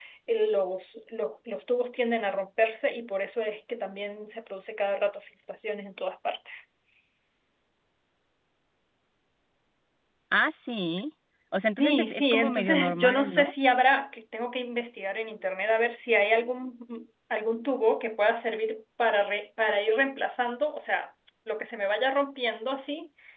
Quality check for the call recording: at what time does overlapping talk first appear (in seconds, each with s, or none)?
11.8 s